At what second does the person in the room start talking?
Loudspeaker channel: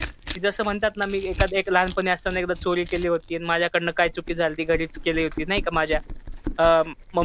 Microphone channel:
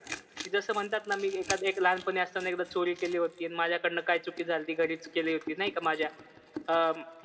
none

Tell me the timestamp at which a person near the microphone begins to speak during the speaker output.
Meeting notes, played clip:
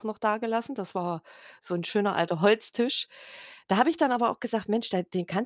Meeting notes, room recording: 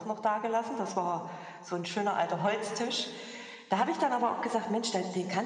none

